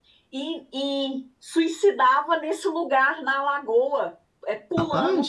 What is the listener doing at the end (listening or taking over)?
listening